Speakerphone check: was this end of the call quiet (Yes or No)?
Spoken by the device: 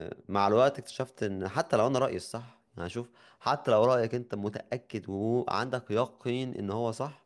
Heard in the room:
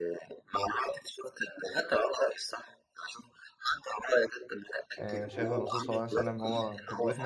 No